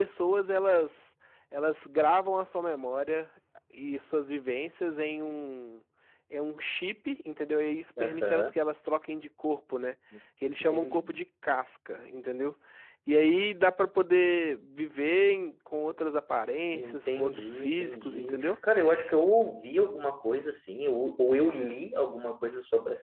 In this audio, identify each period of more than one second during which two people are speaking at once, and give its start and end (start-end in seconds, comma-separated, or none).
16.7-18.6